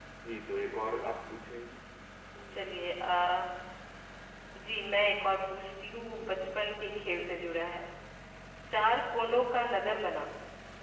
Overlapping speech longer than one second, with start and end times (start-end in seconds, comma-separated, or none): none